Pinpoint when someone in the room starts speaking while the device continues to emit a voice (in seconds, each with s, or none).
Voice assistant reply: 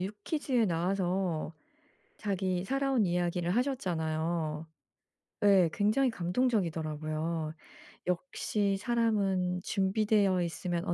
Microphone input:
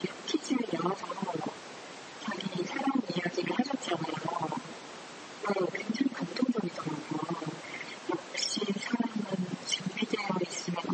none